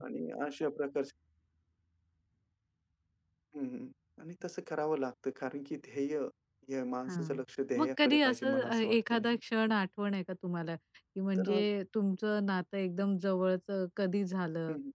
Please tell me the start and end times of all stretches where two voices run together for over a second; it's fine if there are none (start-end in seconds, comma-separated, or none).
7.8-9.4